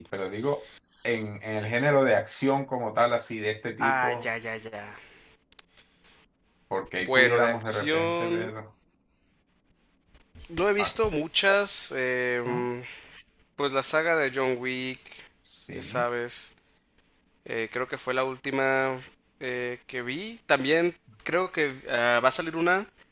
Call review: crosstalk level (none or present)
present